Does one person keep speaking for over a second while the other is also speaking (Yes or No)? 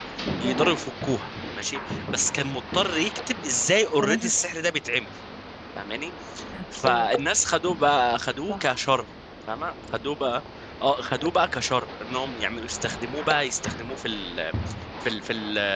No